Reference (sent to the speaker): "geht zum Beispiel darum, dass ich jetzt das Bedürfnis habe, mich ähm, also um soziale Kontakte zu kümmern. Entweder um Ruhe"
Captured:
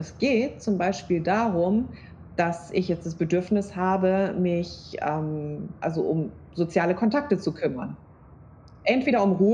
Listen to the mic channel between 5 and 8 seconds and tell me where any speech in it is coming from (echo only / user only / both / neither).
echo only